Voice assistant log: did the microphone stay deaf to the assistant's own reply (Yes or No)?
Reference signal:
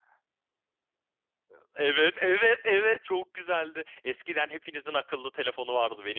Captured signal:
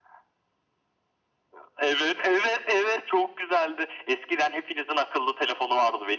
No